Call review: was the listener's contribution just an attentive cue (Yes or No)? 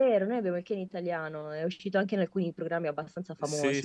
No